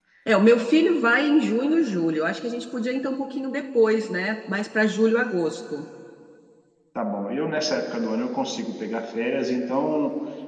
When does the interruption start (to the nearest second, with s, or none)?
none